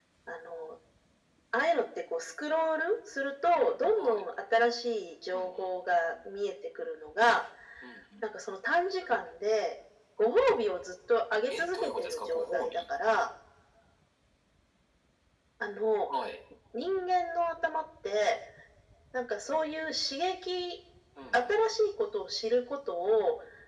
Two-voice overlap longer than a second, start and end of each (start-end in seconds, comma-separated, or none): 11.5-12.8